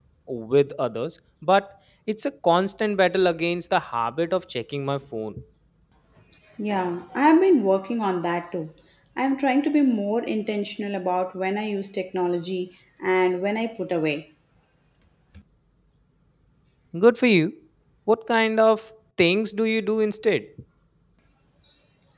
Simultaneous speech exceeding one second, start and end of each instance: none

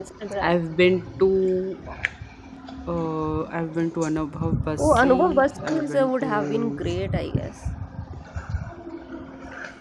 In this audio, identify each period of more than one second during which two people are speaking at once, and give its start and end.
4.8-7.0

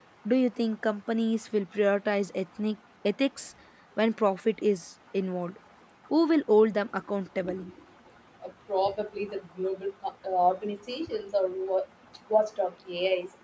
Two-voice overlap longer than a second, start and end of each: none

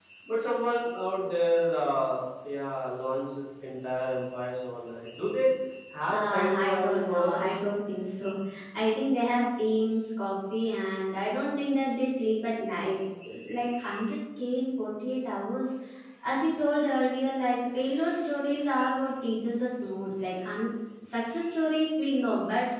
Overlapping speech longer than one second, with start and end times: 6.1-7.4

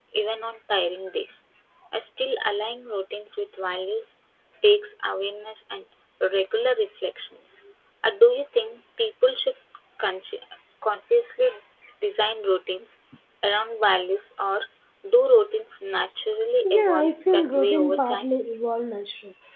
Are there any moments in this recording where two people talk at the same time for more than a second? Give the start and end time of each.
16.6-18.3

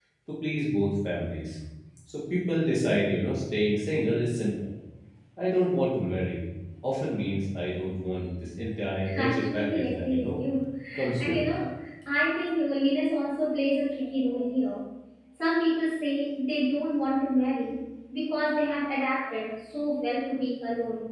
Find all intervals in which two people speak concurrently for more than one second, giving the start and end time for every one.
9.1-10.4

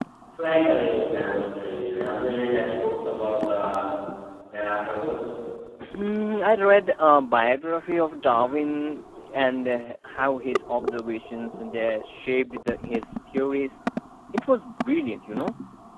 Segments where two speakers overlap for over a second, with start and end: none

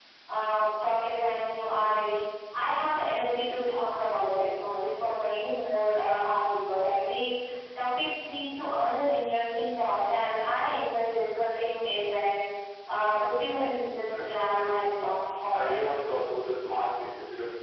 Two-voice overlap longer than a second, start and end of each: 14.1-15.7

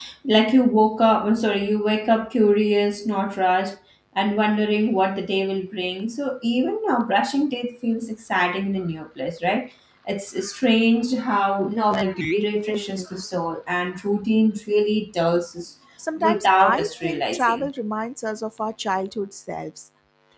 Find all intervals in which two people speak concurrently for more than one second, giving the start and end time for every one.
16.2-17.7

